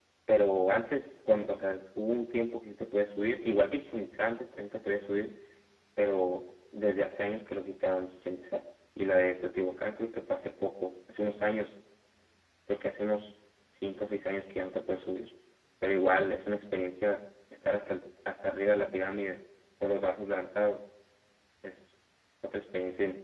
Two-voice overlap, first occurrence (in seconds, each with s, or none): none